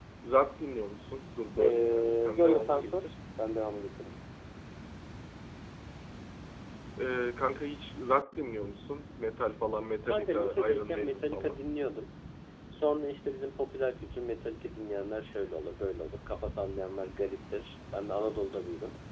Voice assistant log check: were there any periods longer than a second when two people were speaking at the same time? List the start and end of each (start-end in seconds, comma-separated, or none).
1.6-3.1, 10.0-11.6